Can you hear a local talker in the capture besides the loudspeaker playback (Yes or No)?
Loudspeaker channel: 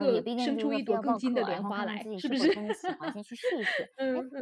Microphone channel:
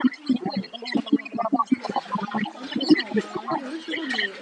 Yes